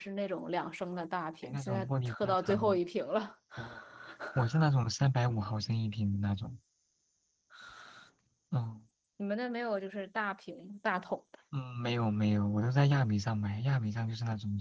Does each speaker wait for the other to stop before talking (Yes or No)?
No